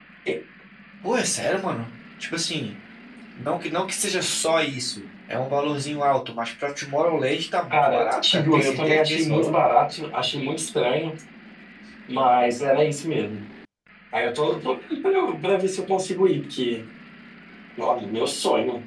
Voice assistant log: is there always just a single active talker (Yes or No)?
No